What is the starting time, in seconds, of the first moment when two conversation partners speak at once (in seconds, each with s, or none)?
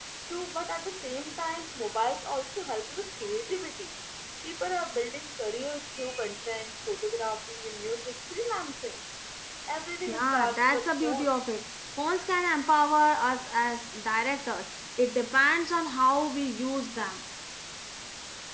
10.1 s